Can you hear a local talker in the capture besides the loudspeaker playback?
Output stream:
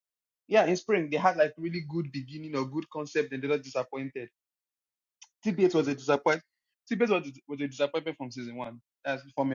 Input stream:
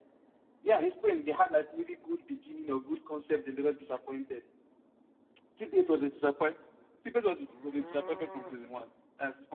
No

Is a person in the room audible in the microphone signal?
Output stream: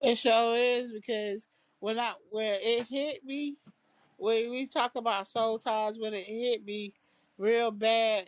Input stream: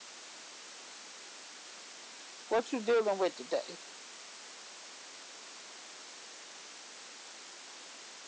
Yes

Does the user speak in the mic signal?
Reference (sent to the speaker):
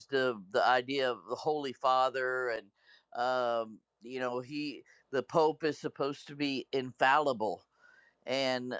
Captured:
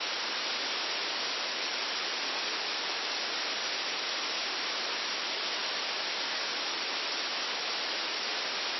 No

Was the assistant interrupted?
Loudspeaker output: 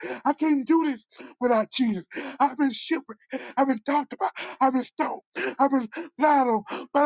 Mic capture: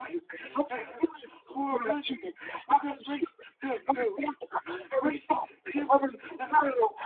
Yes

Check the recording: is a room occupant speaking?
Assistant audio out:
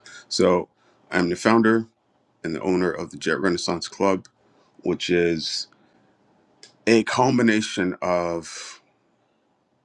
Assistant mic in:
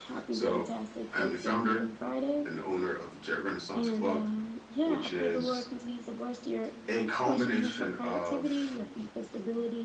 Yes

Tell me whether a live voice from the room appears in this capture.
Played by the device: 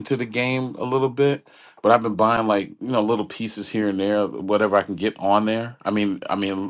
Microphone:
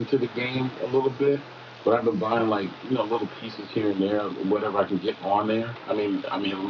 No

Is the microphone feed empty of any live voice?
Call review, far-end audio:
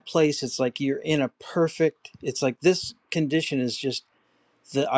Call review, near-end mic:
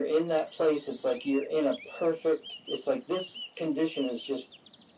Yes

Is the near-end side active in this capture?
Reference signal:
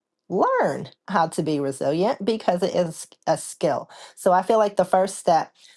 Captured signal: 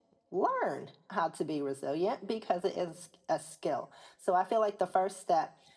No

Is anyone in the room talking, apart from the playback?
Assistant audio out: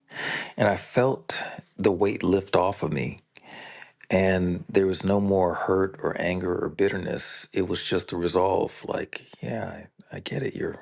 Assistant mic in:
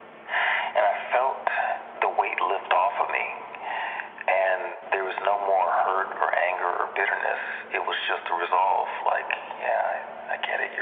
No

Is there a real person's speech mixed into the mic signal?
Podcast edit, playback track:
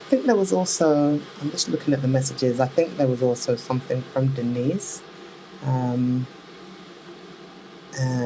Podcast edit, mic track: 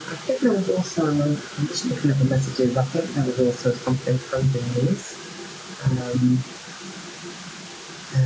No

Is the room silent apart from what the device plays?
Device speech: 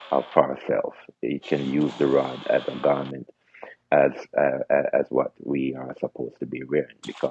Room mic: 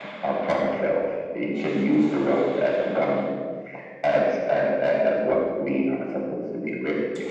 Yes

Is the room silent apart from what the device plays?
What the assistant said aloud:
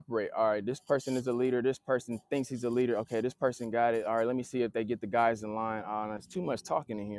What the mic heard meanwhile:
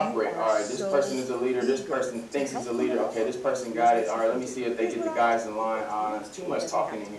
No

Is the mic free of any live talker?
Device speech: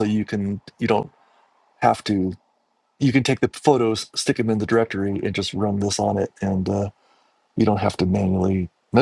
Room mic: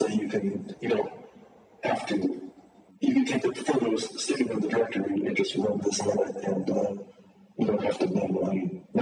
Yes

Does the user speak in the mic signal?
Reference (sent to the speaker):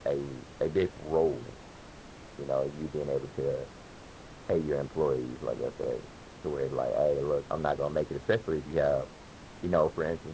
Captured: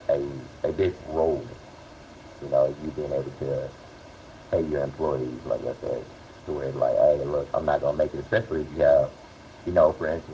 No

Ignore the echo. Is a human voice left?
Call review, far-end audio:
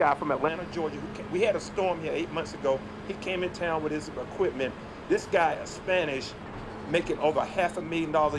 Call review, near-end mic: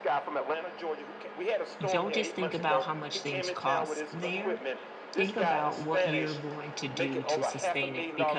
Yes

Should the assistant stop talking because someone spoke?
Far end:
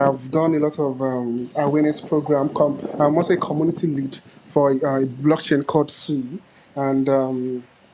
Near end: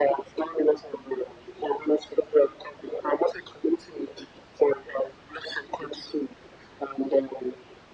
No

